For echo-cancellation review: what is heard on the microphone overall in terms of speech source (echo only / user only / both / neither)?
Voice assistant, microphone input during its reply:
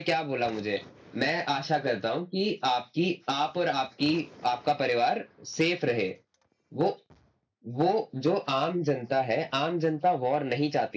echo only